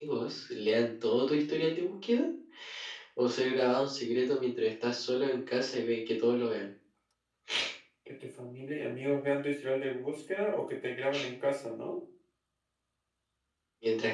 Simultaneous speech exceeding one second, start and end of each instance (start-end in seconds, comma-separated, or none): none